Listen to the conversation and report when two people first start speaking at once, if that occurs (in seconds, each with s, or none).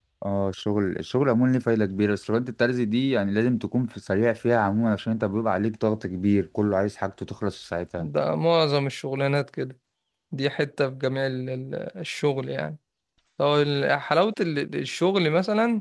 none